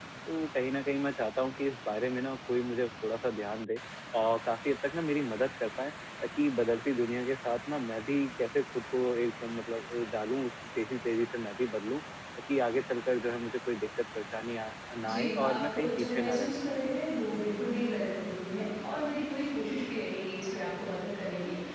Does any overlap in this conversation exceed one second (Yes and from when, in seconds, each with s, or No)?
Yes, from 15.0 s